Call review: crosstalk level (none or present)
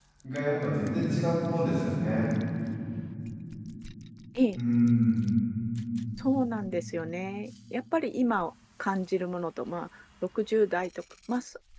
none